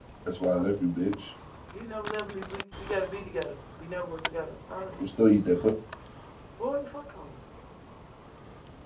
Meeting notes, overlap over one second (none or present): none